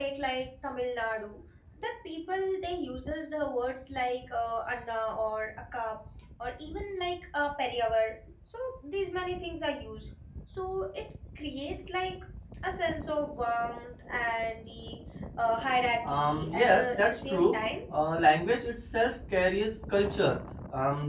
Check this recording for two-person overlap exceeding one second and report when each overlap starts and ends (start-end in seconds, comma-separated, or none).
16.0-17.6